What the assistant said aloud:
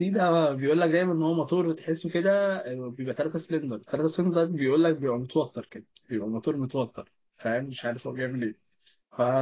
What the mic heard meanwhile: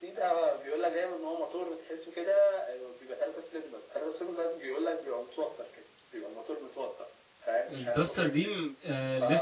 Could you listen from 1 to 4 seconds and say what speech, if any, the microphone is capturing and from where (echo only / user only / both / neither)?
echo only